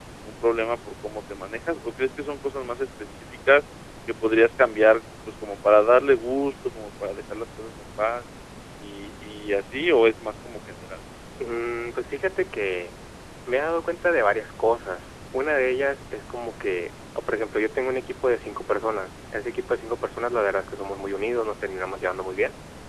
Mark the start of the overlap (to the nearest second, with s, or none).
none